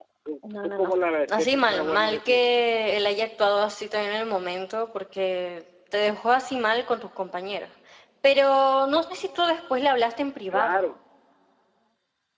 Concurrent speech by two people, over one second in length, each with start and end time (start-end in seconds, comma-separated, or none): 1.3-2.6